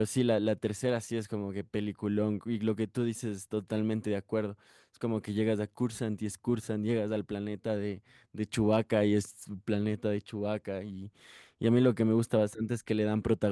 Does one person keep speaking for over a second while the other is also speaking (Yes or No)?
No